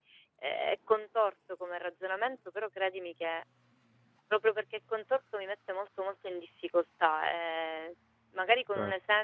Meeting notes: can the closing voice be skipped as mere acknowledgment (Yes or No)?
Yes